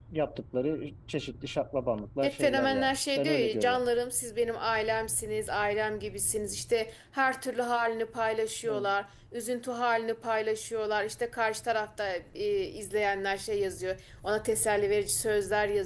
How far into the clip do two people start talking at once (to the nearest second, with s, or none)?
2 s